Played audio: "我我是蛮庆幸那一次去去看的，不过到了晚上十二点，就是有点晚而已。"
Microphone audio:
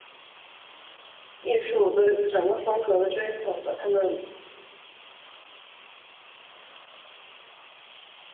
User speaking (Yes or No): Yes